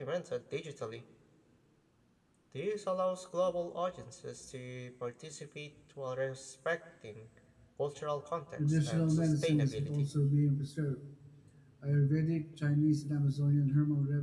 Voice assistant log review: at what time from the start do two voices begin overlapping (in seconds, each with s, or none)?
8.6 s